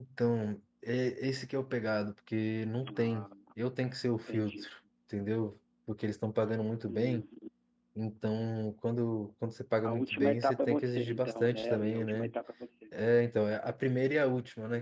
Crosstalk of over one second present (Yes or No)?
Yes